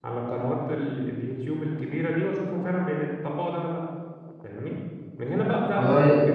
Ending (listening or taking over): listening